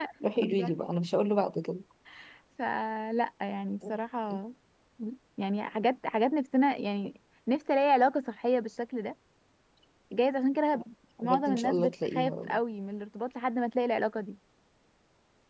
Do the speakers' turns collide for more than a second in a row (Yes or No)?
Yes